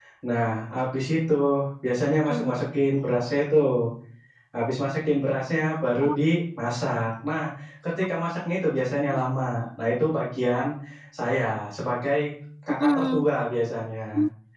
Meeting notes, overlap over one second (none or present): none